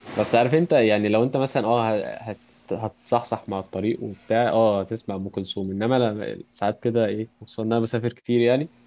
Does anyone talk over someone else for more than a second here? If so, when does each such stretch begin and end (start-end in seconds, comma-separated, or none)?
none